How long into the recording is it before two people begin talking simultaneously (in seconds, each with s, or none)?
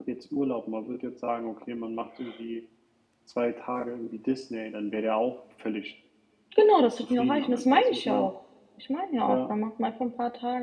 7.0 s